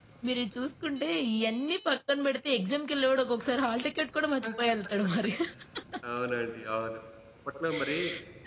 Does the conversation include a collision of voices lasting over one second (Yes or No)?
No